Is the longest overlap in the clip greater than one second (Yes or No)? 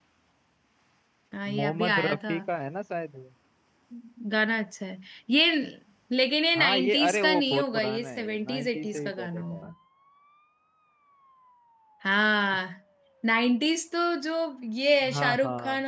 Yes